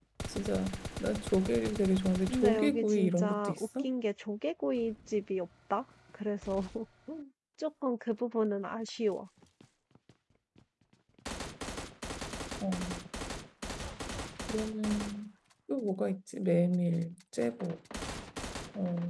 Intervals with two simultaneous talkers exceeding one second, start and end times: 2.3-3.9

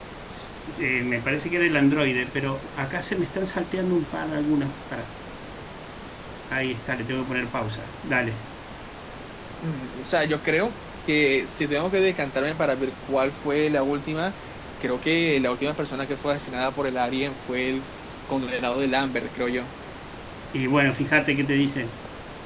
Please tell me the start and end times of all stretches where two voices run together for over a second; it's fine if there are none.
none

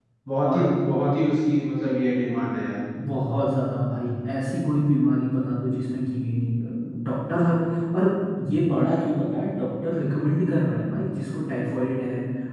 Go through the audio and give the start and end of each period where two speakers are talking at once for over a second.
none

